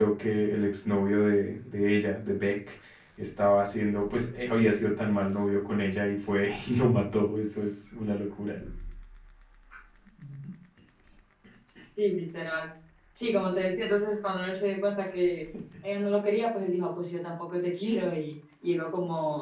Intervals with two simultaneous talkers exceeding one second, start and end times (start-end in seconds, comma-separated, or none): none